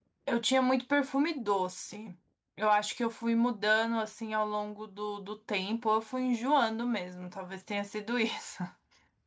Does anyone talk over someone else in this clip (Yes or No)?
No